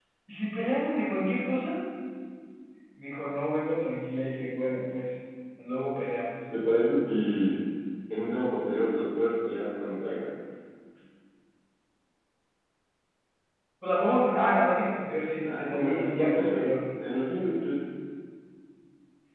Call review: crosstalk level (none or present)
present